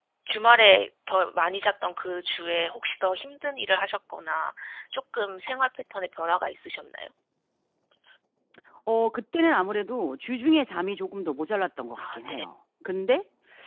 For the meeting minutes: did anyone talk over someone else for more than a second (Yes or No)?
No